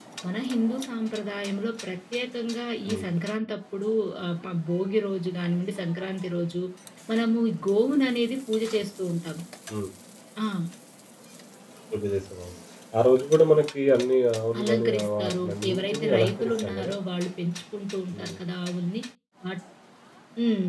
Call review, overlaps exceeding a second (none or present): present